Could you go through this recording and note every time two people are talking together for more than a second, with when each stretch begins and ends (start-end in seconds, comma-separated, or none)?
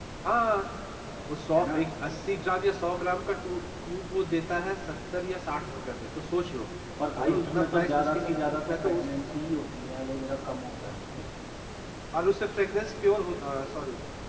7.2-9.0